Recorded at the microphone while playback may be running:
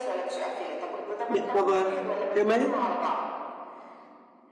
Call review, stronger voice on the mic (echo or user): user